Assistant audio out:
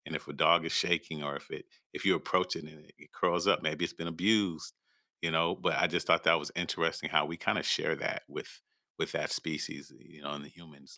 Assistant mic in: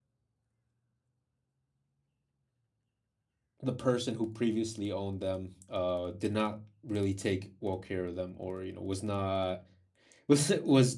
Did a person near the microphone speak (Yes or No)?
Yes